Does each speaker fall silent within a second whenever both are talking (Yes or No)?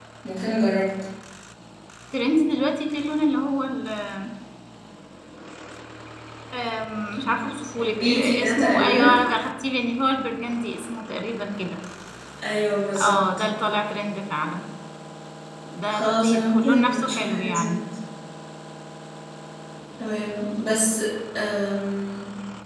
No